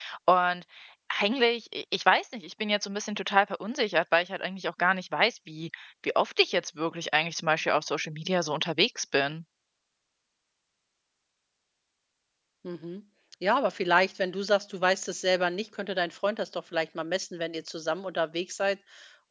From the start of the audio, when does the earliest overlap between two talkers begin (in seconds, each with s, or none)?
none